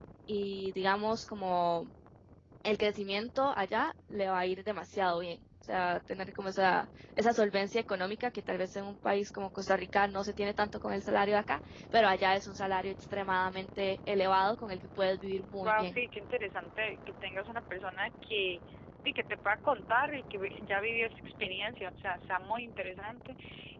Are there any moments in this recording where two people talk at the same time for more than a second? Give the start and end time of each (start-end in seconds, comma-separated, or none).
none